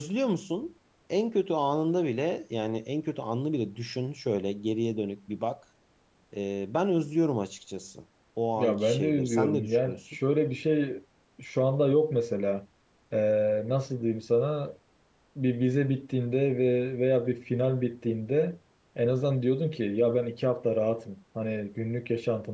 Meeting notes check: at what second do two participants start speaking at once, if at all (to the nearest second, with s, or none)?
9 s